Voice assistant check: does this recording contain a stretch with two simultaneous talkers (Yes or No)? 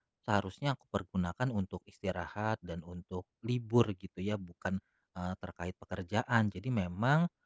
No